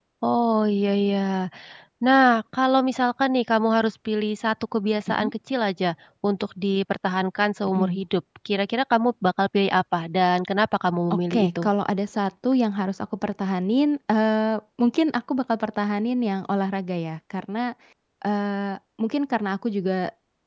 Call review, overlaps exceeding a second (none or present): none